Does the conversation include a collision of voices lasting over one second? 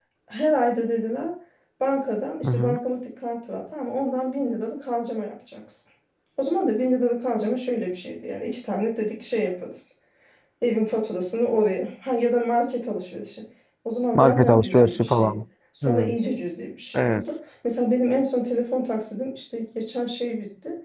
Yes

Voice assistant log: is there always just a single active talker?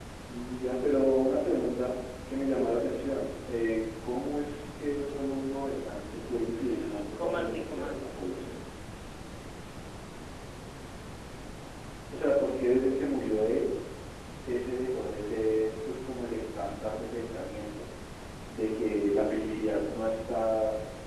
No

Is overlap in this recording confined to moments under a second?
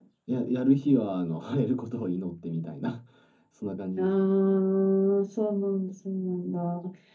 Yes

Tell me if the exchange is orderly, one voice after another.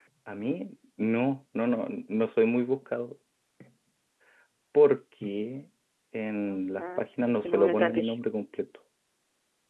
No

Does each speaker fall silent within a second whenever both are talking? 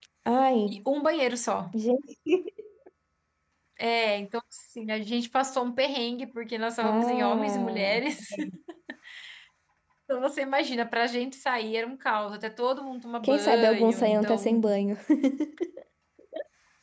No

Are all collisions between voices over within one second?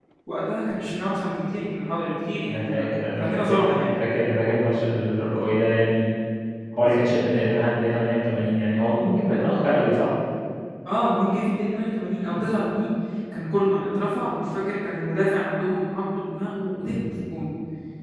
No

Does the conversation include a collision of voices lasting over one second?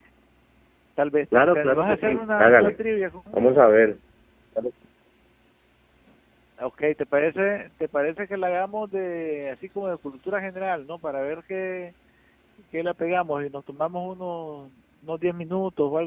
Yes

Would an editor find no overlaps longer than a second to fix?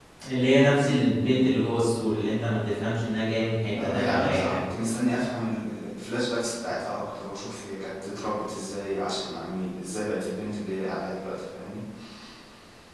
No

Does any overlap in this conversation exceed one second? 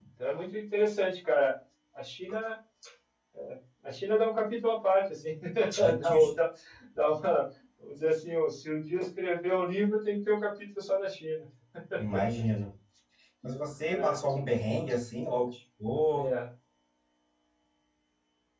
No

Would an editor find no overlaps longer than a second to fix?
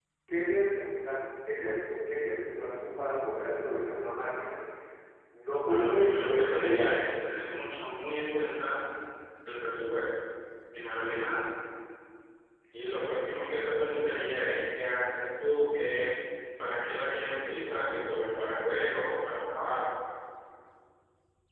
No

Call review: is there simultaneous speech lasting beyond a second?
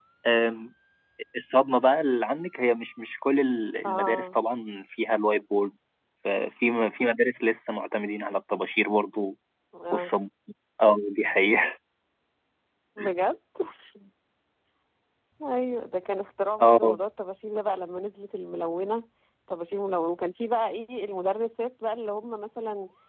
No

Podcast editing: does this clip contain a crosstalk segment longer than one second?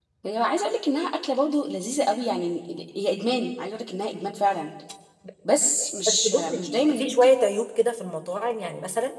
Yes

